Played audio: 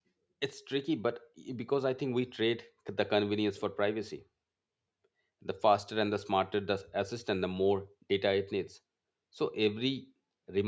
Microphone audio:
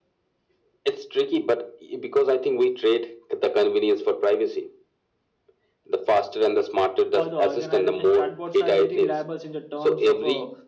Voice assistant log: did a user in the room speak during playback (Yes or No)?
Yes